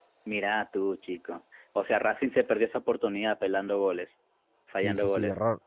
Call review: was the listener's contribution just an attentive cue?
No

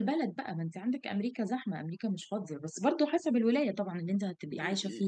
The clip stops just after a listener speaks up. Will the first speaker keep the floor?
No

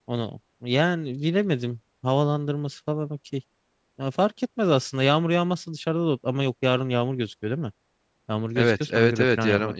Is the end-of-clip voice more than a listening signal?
Yes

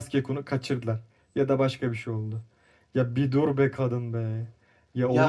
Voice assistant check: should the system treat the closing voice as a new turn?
Yes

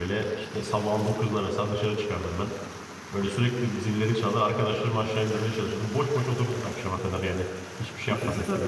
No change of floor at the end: No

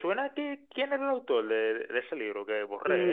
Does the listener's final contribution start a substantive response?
Yes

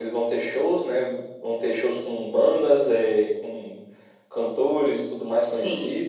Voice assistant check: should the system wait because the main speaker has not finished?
Yes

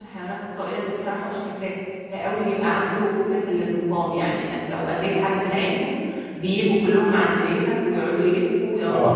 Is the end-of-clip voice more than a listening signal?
Yes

